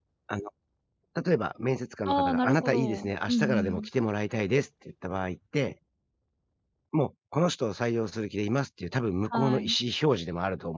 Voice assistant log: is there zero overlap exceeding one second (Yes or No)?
No